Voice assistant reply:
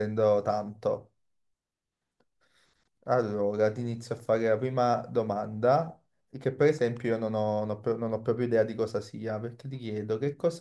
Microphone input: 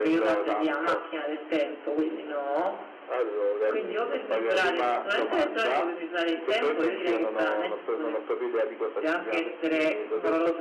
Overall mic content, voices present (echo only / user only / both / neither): both